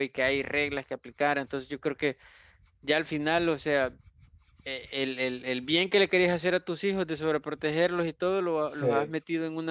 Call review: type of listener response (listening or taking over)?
listening